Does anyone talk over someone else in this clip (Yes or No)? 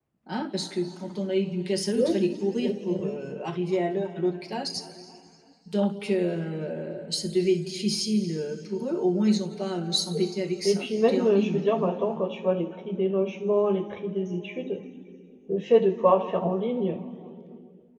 Yes